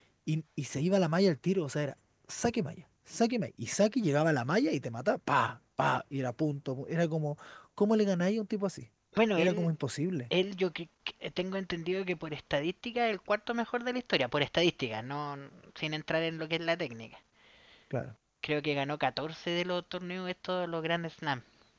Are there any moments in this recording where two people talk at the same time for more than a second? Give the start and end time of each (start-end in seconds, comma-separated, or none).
none